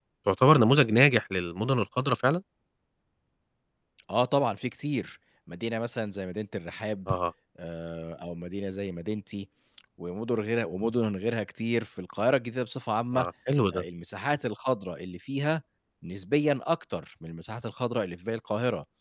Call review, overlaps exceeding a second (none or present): none